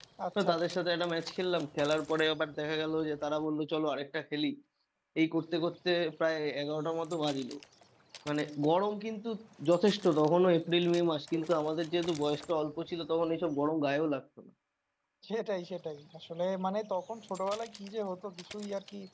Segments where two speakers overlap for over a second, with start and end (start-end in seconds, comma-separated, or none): none